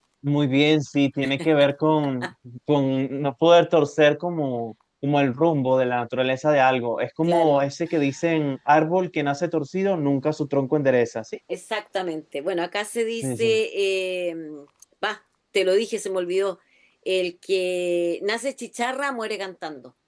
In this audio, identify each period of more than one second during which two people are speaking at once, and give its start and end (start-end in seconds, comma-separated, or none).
none